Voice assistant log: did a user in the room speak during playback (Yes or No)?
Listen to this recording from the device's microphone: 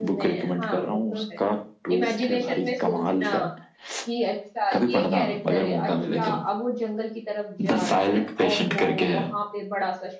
Yes